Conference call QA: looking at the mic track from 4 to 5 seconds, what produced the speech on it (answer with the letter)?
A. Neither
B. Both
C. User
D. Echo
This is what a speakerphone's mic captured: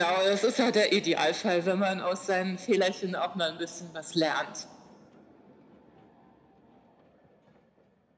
D